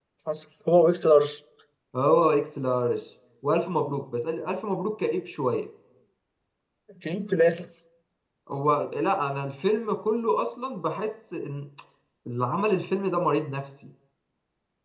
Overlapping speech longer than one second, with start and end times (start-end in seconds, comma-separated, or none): none